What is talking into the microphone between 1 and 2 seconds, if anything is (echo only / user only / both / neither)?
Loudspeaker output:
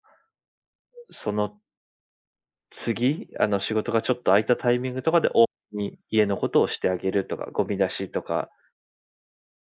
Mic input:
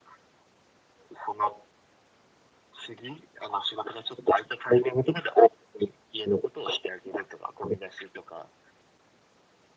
echo only